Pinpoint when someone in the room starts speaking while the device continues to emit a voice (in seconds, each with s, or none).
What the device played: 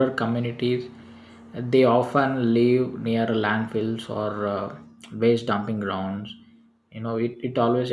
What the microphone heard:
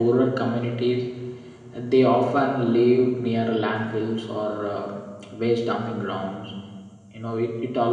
none